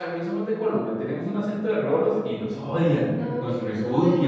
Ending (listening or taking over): taking over